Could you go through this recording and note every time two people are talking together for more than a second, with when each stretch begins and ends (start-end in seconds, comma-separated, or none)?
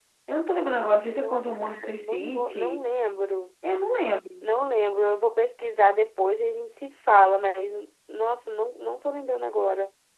1.1-2.8